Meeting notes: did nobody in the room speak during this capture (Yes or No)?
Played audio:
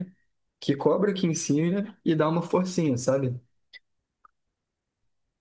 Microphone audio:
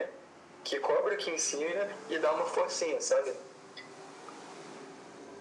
Yes